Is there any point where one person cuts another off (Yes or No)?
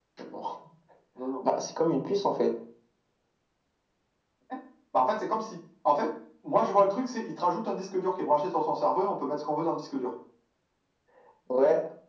No